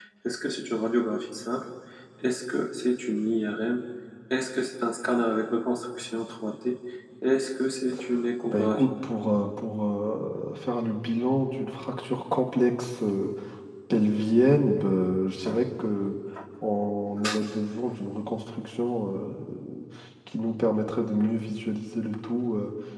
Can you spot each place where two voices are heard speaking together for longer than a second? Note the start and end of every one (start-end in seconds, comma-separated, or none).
none